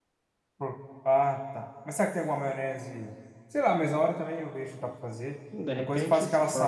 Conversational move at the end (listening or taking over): taking over